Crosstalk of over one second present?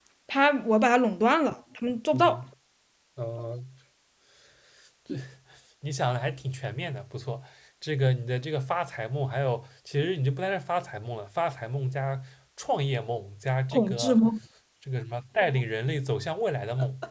No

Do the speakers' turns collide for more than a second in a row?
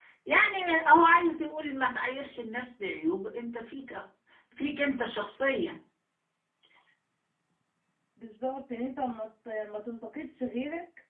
No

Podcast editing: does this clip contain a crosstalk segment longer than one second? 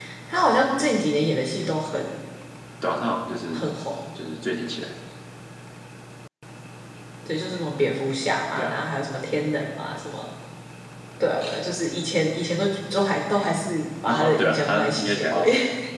Yes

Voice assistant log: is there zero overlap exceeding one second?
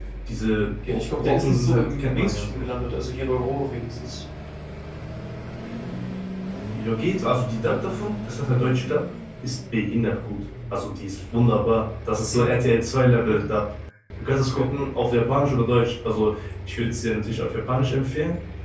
No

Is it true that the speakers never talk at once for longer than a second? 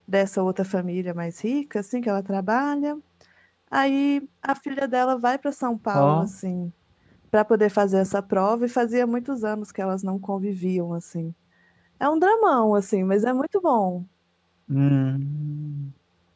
Yes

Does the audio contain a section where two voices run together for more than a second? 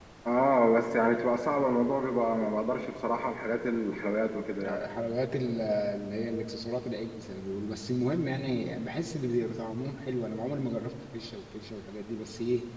No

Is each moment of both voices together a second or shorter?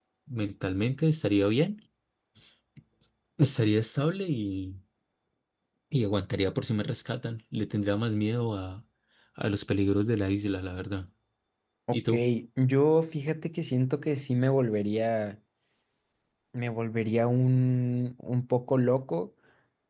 Yes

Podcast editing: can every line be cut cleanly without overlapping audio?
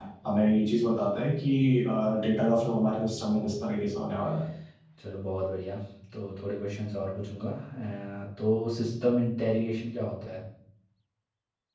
Yes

